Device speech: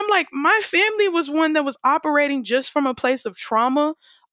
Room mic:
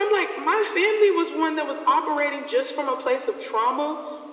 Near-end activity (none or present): none